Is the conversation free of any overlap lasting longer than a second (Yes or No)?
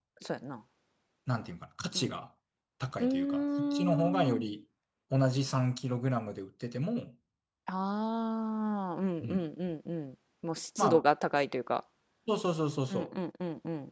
No